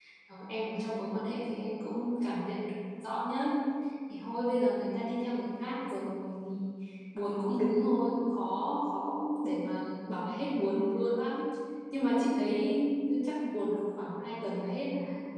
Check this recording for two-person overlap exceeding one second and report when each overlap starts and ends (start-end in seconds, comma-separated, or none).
none